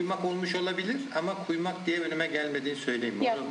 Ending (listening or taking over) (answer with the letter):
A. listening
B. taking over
B